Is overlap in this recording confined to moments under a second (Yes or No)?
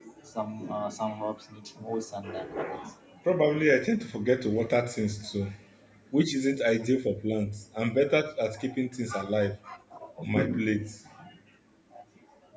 Yes